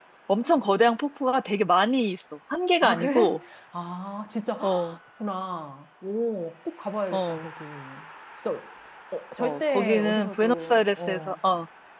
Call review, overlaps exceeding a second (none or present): present